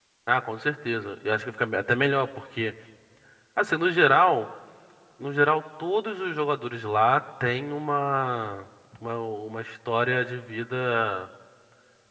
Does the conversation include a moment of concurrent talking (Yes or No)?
No